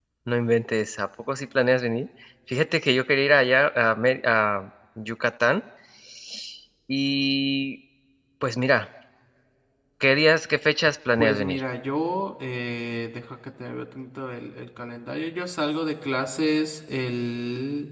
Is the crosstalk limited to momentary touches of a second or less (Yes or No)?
Yes